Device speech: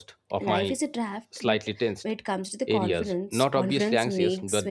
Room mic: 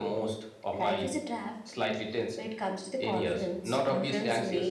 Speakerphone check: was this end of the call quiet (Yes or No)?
Yes